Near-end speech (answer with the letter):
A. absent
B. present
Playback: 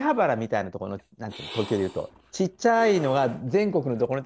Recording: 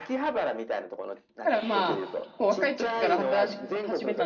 B